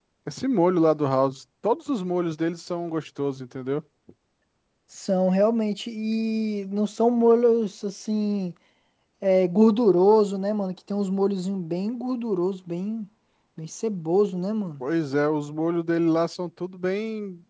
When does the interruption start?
none

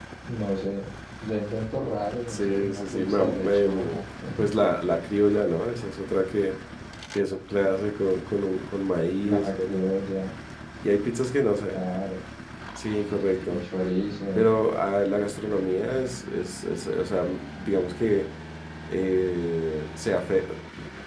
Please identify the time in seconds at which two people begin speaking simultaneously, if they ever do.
2.3 s

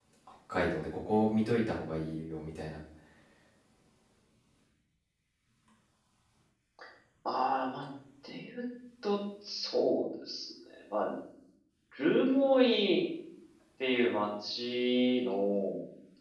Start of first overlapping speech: none

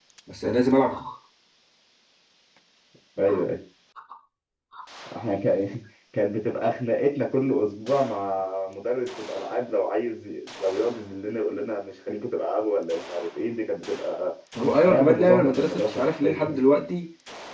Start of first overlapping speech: 14.8 s

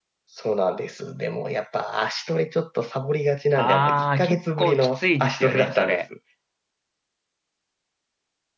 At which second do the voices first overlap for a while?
3.5 s

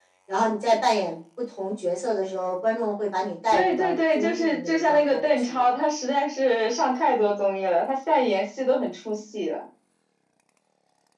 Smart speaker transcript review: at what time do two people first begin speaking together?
3.5 s

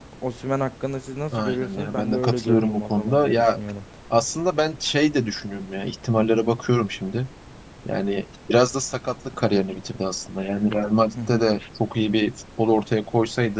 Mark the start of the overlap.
1.3 s

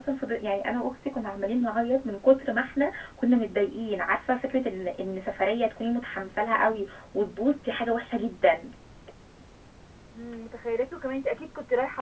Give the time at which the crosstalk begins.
none

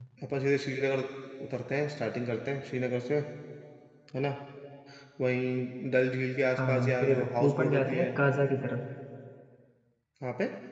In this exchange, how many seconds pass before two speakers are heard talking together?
6.4 s

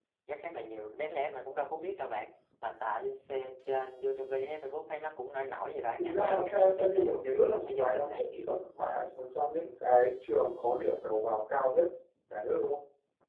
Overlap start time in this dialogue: 6.0 s

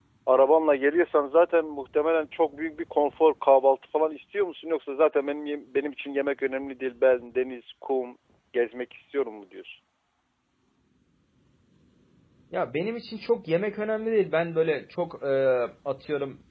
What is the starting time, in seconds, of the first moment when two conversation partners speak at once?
none

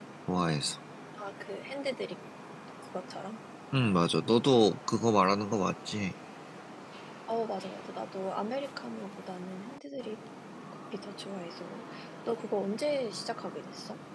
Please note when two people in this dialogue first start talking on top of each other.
none

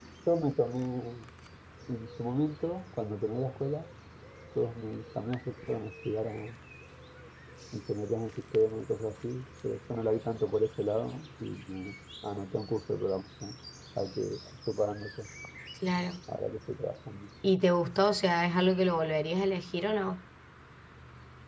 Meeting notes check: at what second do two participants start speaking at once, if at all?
none

